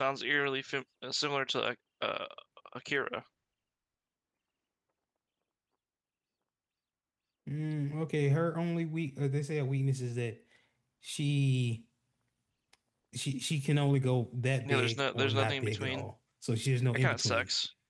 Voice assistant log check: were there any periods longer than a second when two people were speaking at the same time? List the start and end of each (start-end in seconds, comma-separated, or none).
14.6-16.1